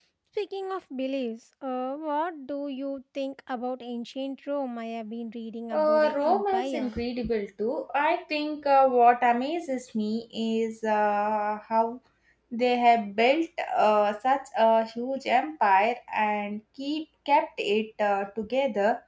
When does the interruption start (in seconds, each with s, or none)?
5.7 s